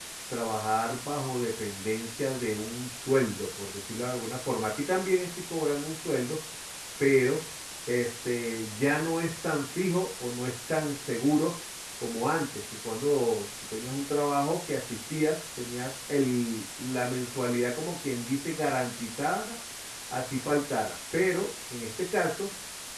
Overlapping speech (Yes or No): No